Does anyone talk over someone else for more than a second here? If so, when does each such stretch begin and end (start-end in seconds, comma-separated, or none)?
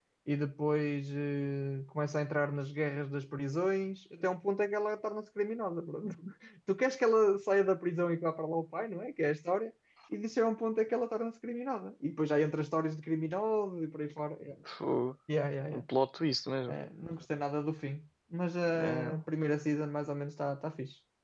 none